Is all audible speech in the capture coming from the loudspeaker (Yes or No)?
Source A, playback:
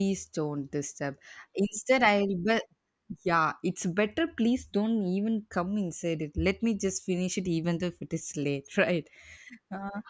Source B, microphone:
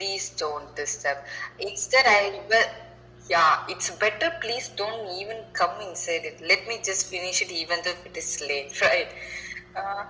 Yes